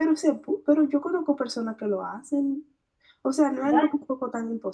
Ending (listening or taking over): listening